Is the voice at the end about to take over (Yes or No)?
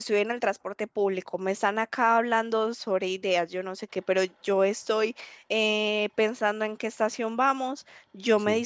No